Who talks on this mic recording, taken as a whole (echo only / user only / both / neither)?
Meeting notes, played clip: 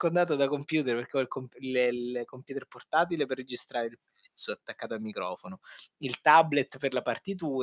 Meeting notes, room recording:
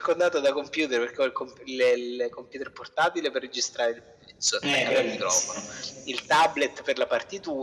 both